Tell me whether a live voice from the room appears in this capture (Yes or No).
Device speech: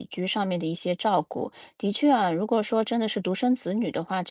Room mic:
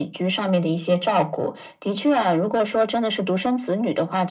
No